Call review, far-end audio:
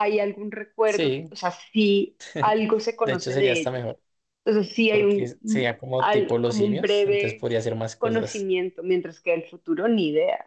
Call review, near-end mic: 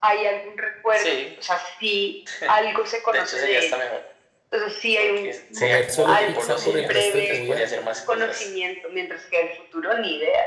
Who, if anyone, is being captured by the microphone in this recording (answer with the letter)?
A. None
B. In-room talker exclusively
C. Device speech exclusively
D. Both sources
D